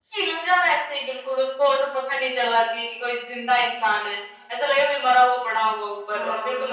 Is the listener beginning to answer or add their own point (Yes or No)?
No